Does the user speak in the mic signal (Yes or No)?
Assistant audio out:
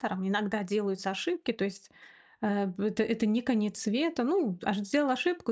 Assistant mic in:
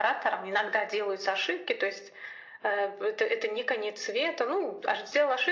No